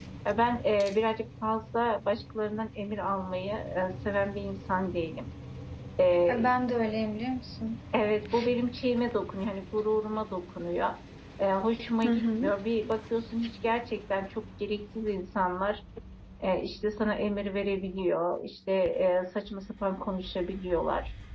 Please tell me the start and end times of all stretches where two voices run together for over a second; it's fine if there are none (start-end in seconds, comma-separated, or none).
none